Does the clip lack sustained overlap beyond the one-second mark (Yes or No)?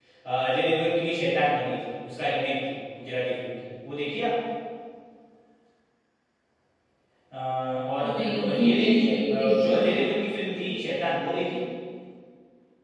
No